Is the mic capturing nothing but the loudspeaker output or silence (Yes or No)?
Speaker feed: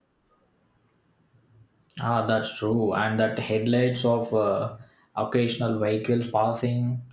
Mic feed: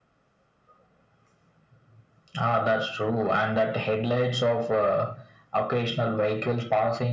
Yes